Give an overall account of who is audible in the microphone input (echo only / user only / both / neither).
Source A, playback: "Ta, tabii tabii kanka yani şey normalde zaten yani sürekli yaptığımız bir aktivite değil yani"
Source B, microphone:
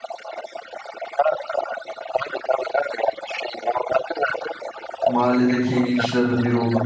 both